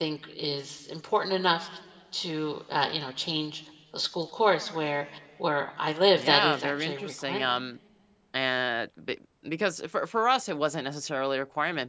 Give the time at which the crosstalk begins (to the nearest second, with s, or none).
6 s